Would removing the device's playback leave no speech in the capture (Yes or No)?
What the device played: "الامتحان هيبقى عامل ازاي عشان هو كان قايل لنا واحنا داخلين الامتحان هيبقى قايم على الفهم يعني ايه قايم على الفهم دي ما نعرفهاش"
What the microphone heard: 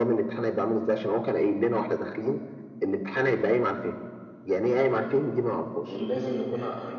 No